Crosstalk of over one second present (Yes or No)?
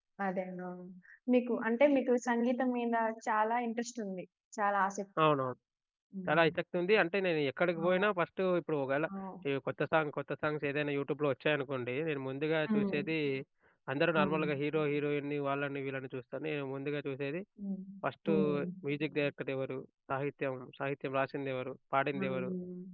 No